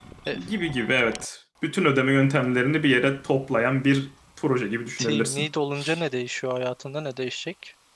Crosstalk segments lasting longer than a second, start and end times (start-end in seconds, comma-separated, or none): none